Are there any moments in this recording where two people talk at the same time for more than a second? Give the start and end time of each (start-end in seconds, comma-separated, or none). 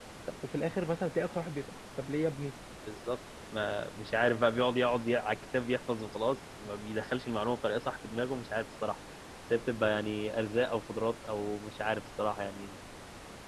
none